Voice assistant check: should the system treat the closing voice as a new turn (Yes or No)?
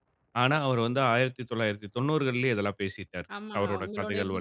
Yes